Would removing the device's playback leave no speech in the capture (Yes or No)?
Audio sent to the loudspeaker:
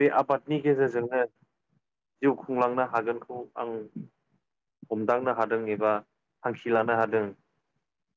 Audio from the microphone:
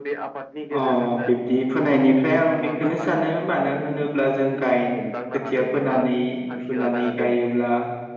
No